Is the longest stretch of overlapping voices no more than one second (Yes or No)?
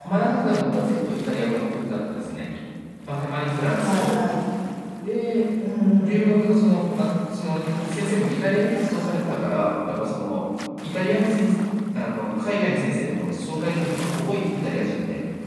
Yes